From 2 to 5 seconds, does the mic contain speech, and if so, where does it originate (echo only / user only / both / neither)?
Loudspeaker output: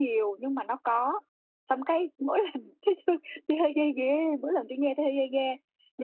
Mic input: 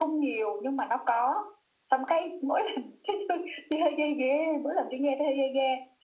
echo only